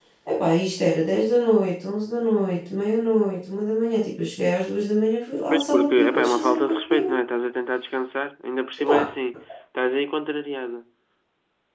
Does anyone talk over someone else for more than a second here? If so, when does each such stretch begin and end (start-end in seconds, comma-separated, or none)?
5.5-7.2